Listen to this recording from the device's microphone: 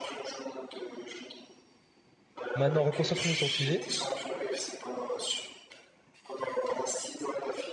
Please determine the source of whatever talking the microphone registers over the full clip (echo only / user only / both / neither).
both